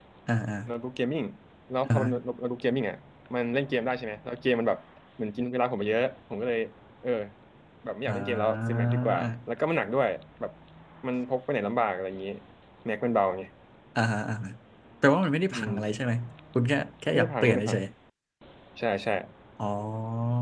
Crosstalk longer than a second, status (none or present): present